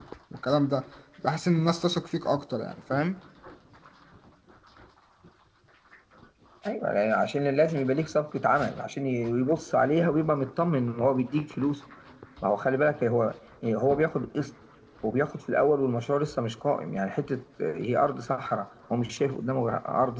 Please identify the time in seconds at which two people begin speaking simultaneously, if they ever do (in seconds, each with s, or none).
none